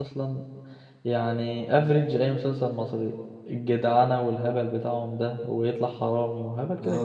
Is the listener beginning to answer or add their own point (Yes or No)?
Yes